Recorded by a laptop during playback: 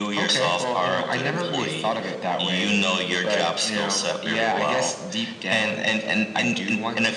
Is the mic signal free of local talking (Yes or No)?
Yes